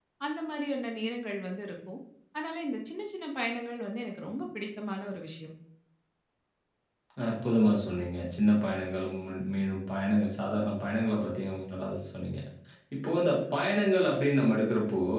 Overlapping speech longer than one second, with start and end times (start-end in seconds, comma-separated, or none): none